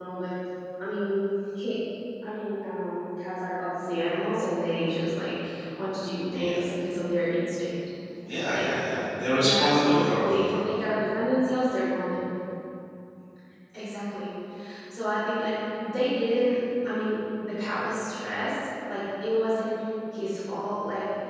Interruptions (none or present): present